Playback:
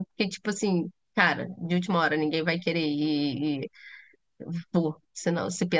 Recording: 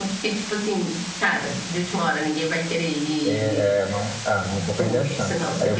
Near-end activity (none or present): present